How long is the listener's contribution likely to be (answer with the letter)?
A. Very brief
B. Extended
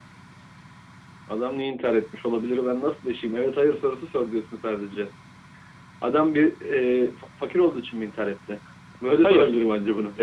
B